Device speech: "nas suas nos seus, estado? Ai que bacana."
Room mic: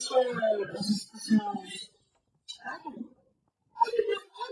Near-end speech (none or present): none